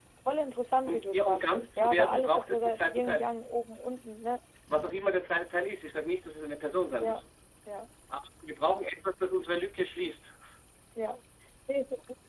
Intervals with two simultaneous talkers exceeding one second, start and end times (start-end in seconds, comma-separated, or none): 0.9-3.3